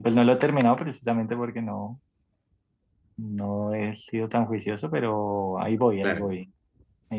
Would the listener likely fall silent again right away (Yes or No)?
Yes